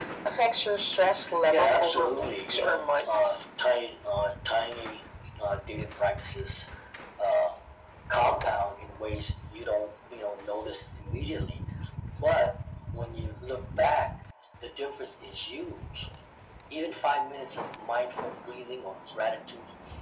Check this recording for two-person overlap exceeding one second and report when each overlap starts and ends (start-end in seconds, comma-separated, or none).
1.5-3.1